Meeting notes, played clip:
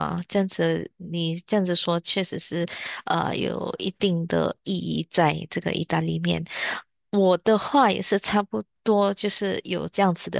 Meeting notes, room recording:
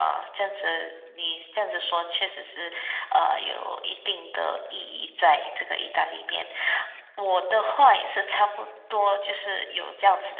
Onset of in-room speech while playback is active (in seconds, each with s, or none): none